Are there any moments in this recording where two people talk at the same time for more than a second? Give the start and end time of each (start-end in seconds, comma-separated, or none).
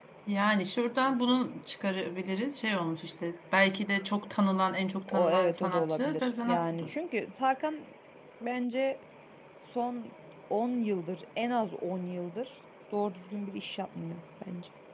5.1-7.0